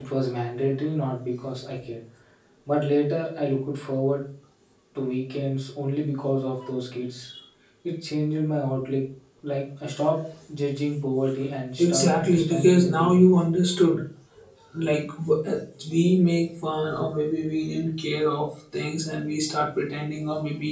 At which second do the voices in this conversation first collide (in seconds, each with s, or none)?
11.8 s